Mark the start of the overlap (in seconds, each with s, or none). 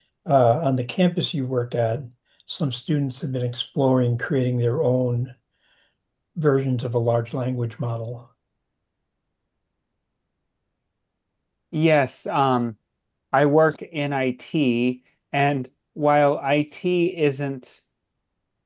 none